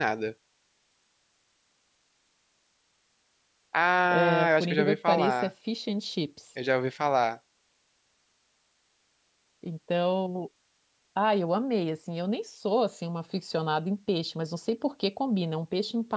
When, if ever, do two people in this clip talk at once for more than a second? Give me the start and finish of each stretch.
4.1-5.5

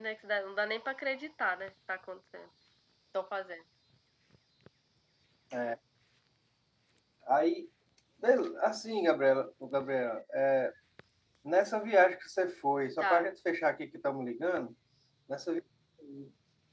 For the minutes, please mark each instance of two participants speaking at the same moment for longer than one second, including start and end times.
none

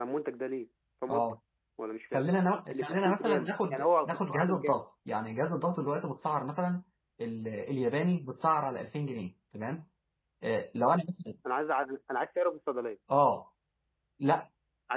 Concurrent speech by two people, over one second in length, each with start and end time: 2.7-4.8

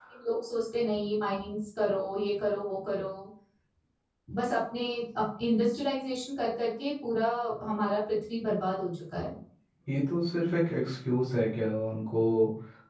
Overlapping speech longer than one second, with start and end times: none

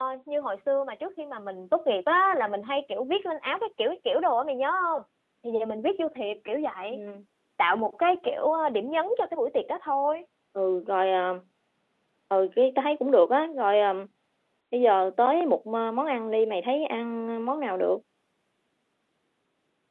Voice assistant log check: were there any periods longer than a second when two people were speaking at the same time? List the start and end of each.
none

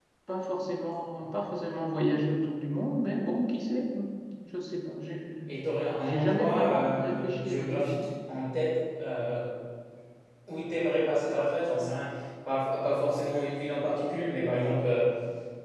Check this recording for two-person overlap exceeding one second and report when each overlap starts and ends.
6.0-8.1

